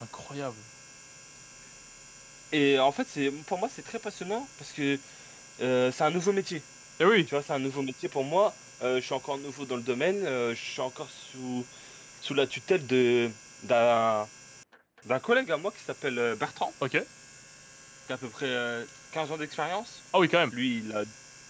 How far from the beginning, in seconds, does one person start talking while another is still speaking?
none

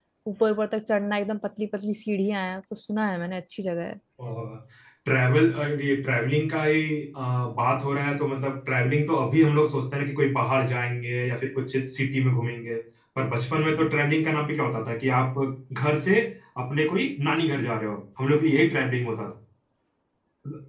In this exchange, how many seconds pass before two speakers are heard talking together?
none

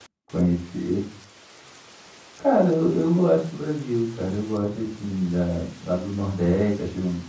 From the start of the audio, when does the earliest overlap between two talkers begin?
none

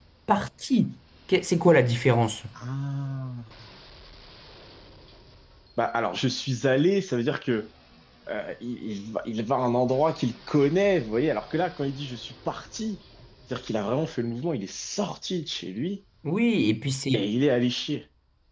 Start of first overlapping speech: none

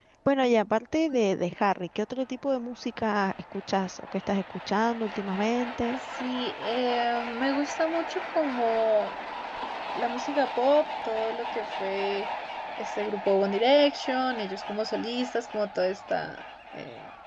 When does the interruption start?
none

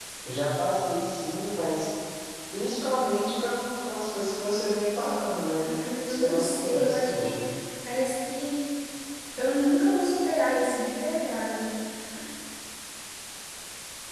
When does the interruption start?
6 s

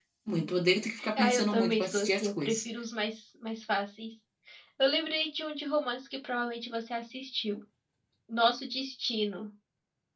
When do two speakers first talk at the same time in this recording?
1 s

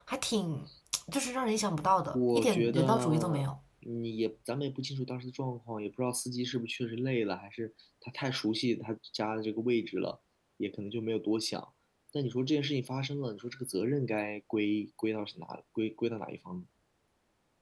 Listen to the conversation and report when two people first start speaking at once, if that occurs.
2 s

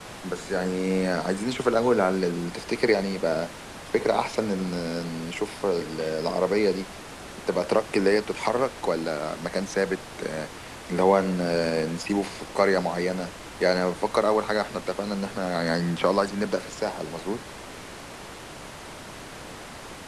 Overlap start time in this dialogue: none

